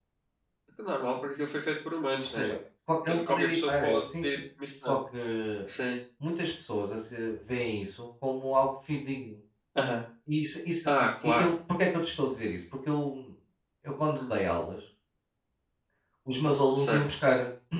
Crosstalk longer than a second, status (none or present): present